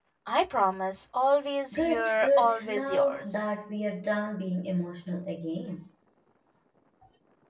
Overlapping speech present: Yes, from 1.7 s

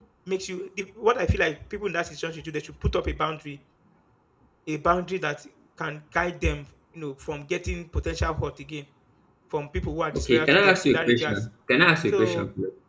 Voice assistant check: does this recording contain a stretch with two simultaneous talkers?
Yes, from 10.1 s

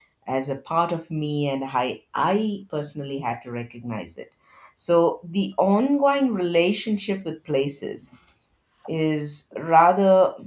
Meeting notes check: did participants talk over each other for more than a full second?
No

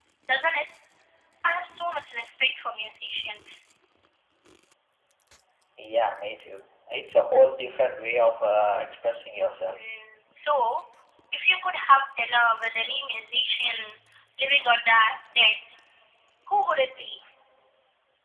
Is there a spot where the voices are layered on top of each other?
No

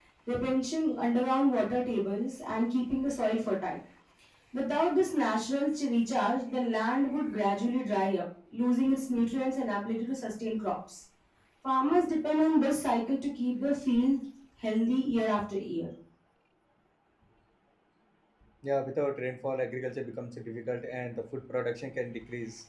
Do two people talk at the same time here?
No

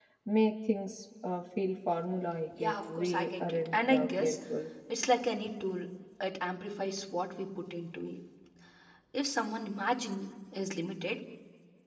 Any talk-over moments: Yes, from 2.6 s

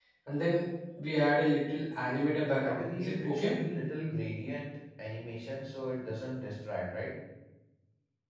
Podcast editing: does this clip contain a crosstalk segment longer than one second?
Yes, from 1.9 s

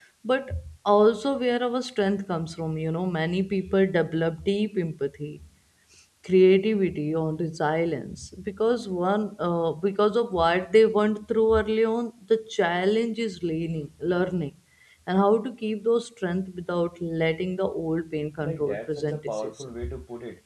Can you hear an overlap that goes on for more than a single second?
Yes, from 18.4 s

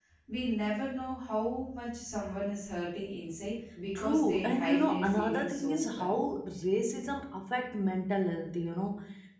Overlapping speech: Yes, from 4.0 s

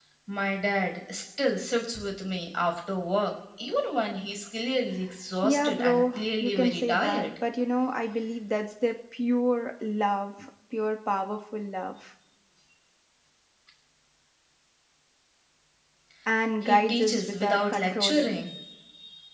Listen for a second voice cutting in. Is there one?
Yes, from 5.4 s

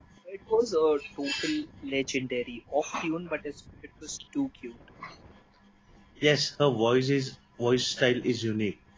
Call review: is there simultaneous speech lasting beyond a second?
No

